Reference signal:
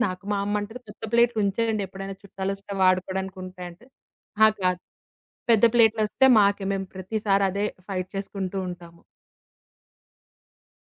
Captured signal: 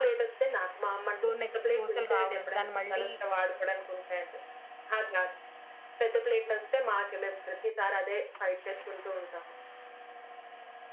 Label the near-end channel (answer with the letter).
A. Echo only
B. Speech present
B